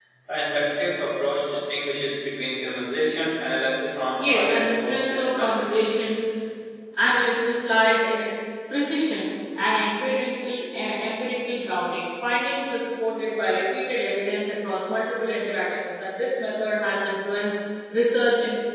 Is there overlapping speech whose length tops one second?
Yes, from 4.2 s

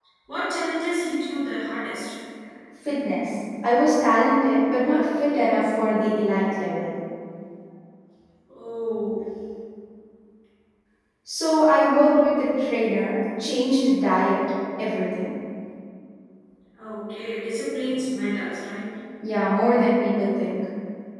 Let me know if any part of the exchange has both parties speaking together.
No

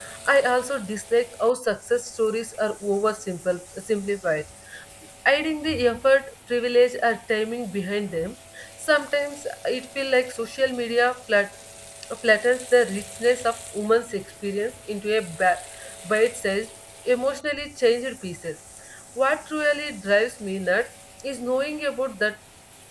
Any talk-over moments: No

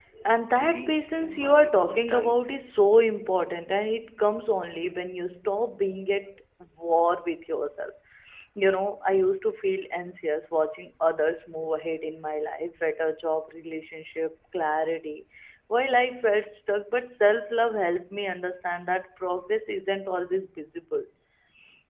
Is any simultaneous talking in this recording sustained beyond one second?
Yes, from 0.6 s

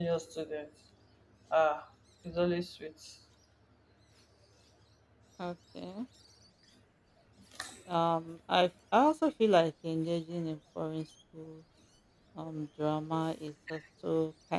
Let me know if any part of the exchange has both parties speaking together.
No

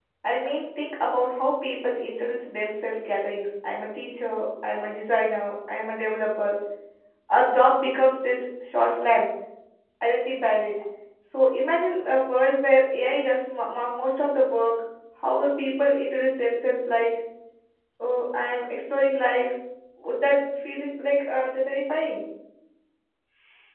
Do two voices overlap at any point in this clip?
No

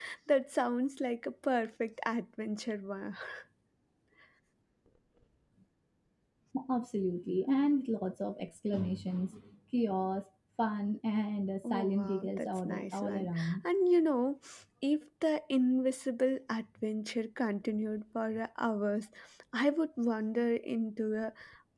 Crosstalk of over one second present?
Yes, from 11.6 s

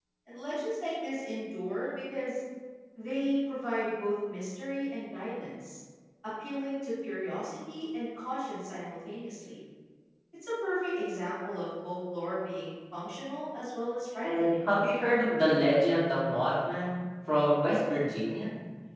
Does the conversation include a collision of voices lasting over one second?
No

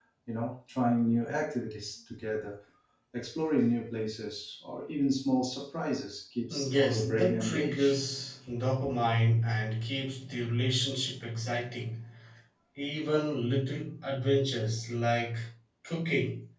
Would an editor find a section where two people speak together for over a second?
Yes, from 6.5 s

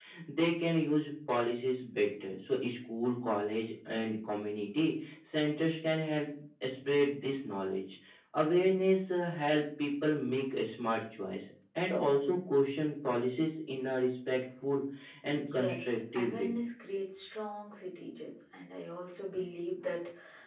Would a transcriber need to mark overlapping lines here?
Yes, from 15.3 s

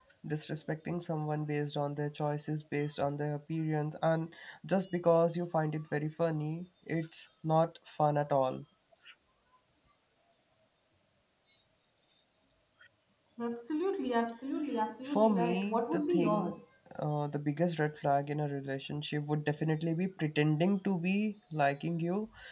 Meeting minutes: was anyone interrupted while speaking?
Yes, from 15.0 s

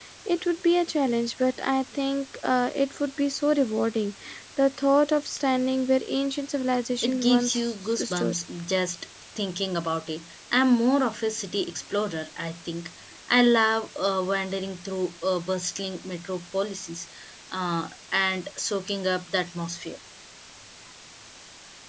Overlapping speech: Yes, from 7.0 s

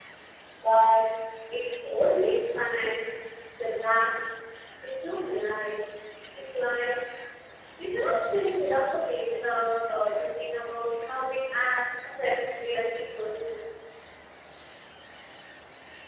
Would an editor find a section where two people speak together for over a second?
No

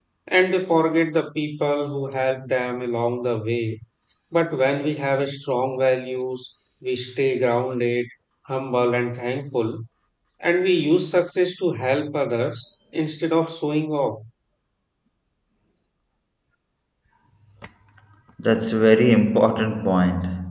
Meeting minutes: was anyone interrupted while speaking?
No

